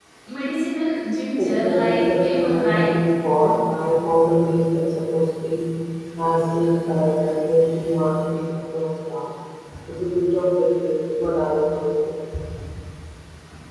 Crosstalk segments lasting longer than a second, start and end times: 1.4-2.9

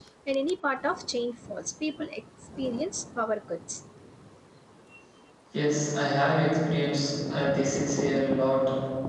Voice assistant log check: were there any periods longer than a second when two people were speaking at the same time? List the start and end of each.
none

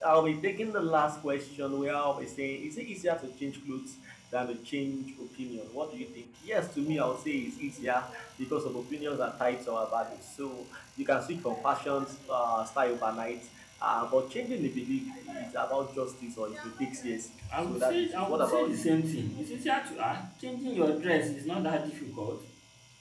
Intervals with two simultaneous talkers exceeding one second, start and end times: 17.5-18.9

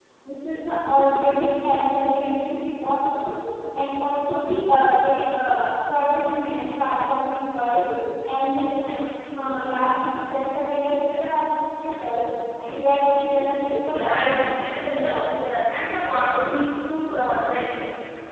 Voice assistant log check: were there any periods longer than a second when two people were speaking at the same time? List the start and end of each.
13.9-15.4

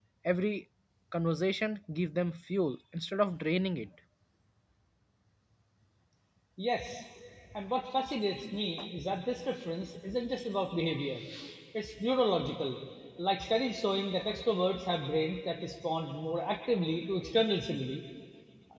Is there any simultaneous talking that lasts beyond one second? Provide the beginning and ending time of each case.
none

